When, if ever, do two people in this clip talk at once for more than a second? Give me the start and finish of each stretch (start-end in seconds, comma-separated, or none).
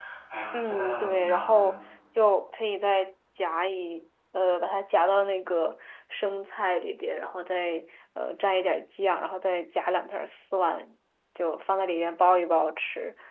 0.5-1.8